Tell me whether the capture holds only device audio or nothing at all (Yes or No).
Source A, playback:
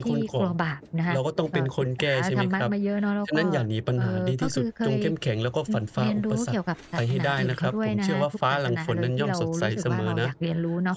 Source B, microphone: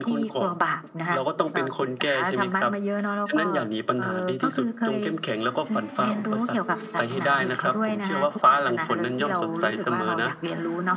No